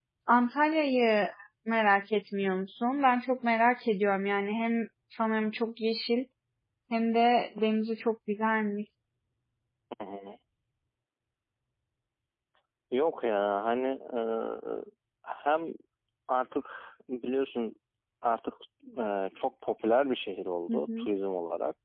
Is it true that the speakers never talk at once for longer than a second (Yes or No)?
Yes